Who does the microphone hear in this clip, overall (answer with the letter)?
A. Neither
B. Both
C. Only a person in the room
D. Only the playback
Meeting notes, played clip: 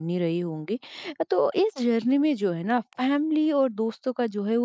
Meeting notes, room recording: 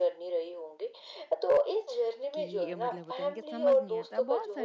B